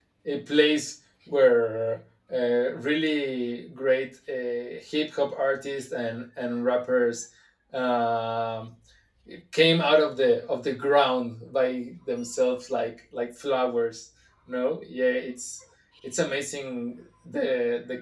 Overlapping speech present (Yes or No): No